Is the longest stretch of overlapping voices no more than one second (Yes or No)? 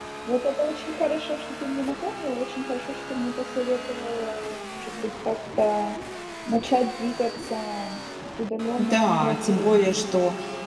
No